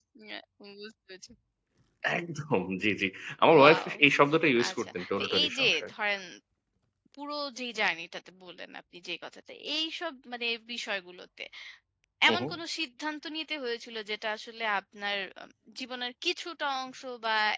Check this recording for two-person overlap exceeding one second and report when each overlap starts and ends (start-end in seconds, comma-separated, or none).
4.7-5.9